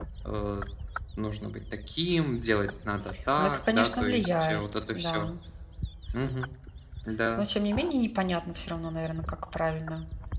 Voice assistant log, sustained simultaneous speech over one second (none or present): present